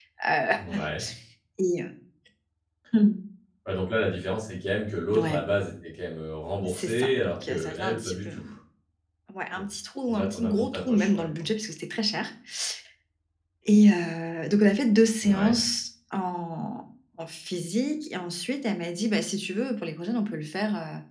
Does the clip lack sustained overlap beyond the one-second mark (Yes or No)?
No